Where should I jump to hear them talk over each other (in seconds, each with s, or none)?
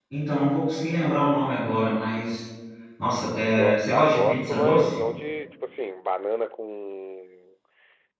3.5 s